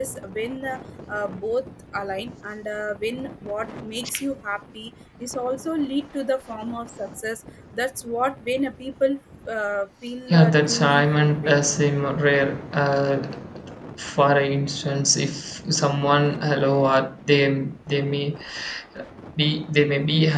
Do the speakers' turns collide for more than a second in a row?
Yes, from 10.3 s

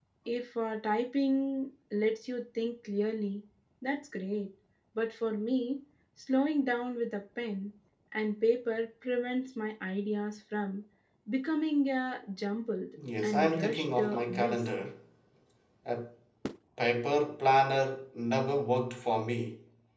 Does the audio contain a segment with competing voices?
Yes, from 13.0 s

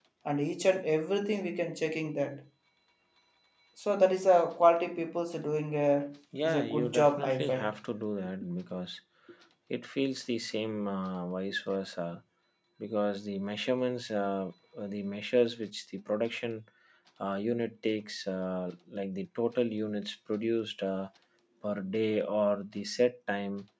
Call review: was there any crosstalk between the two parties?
Yes, from 6.3 s

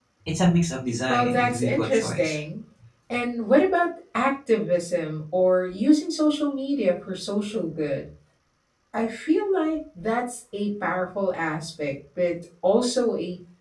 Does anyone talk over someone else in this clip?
Yes, from 1.1 s

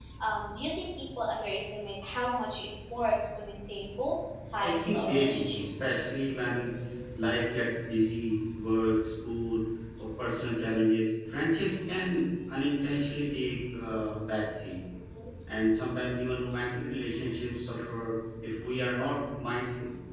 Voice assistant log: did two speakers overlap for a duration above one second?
Yes, from 4.6 s

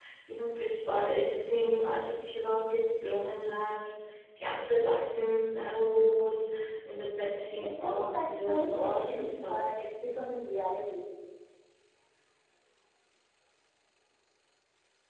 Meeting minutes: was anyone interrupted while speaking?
Yes, from 7.6 s

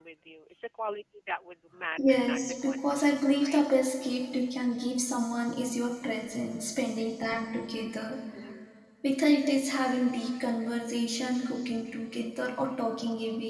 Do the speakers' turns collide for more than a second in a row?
Yes, from 2.0 s

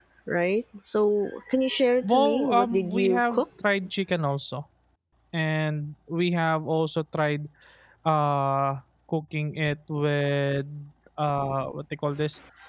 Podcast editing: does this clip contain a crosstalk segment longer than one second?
Yes, from 2.0 s

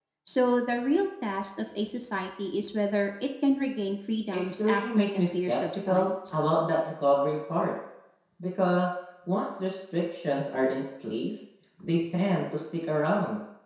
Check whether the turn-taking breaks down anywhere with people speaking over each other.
Yes, from 4.3 s

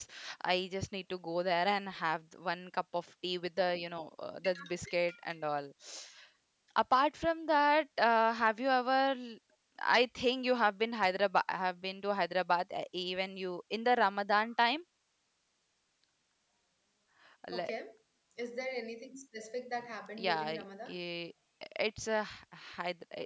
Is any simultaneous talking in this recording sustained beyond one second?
No

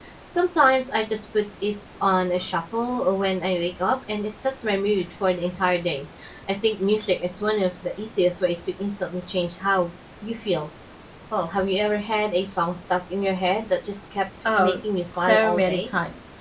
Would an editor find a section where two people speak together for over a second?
Yes, from 14.4 s

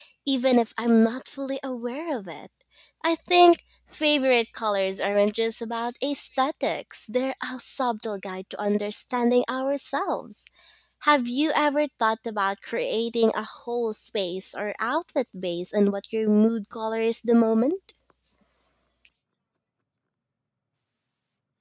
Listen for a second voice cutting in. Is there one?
No

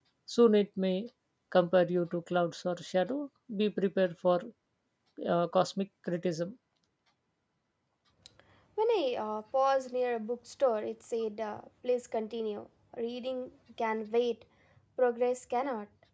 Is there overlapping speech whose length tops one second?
No

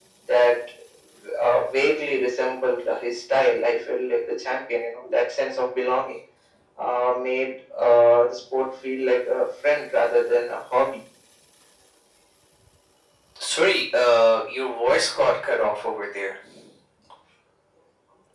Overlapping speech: No

